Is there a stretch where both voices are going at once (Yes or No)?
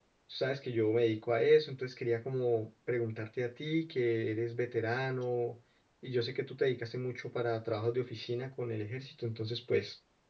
No